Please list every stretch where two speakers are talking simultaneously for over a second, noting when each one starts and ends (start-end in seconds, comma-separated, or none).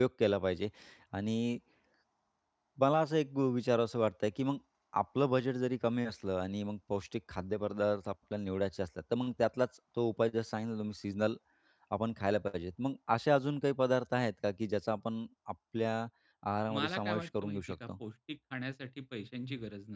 16.7-17.9